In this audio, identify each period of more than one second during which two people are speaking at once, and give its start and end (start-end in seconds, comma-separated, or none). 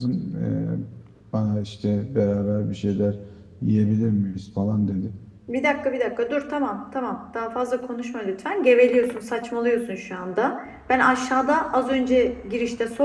none